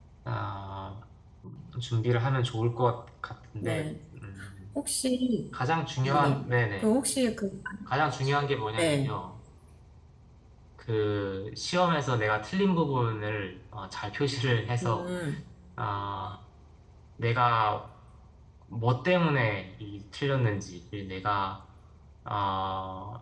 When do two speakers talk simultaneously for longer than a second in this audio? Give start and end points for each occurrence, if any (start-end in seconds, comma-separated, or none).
none